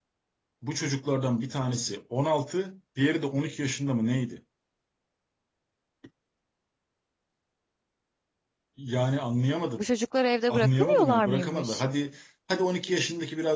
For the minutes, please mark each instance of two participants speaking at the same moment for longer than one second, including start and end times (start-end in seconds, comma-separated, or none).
10.5-11.8